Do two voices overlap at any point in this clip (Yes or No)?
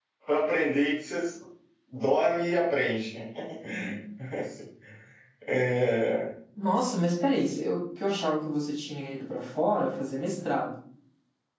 No